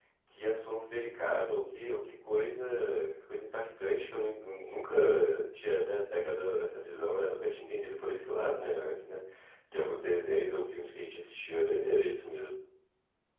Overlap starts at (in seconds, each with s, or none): none